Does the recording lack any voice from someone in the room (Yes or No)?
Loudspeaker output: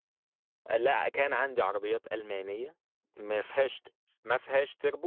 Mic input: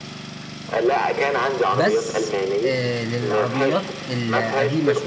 No